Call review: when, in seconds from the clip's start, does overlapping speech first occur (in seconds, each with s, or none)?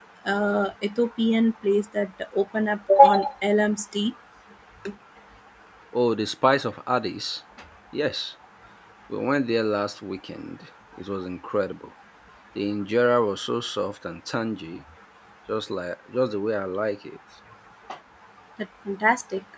none